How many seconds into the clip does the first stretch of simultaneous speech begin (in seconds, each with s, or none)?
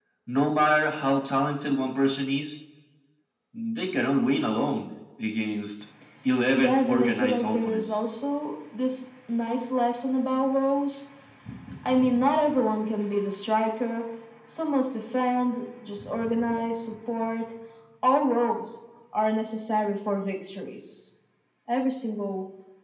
6.5 s